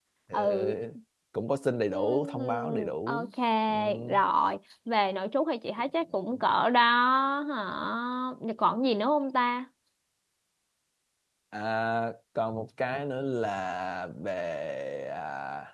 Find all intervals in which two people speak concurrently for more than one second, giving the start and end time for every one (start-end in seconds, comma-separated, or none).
1.9-3.3